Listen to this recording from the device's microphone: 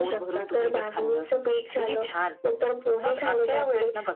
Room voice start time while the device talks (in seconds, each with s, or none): none